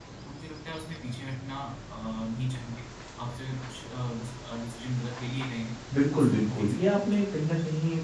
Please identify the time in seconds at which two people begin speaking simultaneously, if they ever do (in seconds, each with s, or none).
5.9 s